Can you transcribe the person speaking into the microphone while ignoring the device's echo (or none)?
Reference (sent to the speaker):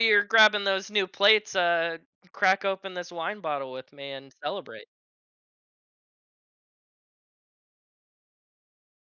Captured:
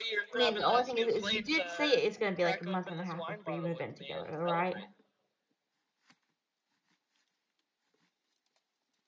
I mean, the only thing is is you did say it's gonna be, like, a month and a half before you move in together, right?